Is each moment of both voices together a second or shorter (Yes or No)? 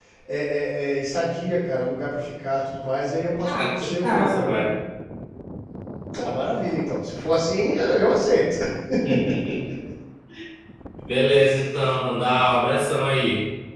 No